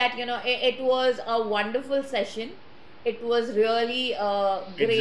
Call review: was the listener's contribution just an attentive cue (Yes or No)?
Yes